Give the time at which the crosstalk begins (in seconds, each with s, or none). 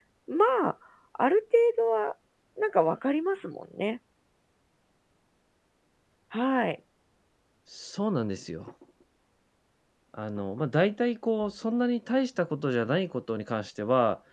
none